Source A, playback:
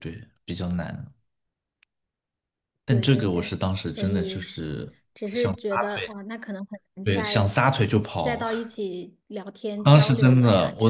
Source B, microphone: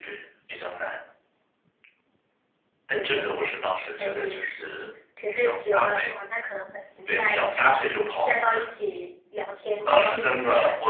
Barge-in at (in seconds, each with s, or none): none